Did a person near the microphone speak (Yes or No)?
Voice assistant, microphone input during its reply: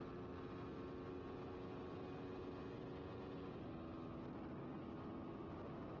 No